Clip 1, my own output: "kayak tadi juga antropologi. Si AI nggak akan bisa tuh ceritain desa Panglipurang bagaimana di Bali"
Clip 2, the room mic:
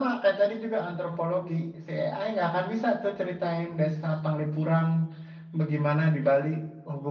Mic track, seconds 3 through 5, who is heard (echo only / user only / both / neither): echo only